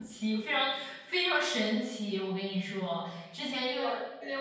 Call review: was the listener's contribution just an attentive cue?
Yes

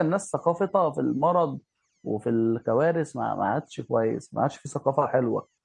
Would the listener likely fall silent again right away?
No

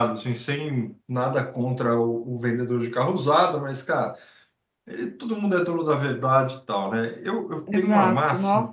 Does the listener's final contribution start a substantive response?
Yes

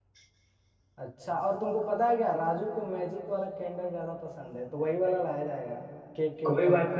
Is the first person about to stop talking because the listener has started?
Yes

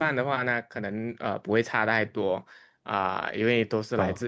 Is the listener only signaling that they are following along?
Yes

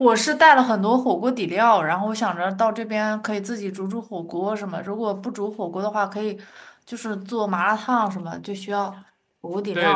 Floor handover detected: Yes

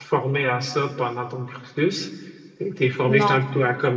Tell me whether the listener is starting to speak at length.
No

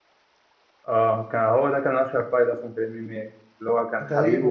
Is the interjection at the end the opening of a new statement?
No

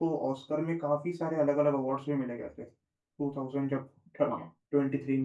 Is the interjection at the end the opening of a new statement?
No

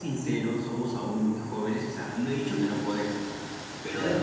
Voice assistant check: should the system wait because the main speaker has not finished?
Yes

